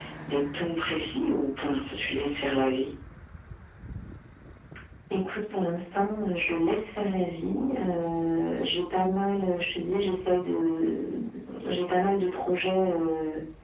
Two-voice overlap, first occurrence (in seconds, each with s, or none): none